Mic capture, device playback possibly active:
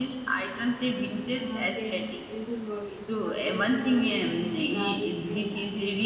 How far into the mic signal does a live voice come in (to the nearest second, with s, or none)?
1 s